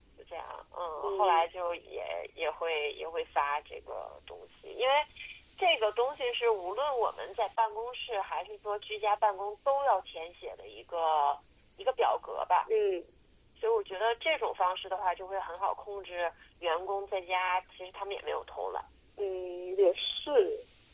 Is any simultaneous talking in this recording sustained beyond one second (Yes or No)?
No